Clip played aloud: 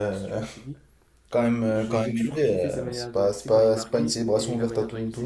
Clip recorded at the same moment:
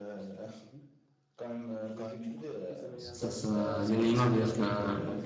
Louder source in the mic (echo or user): user